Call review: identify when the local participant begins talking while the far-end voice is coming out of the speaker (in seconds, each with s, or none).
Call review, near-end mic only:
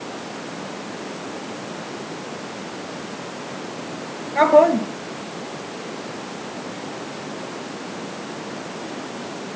4.3 s